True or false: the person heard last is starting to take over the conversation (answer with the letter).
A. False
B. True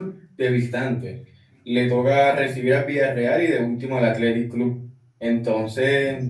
A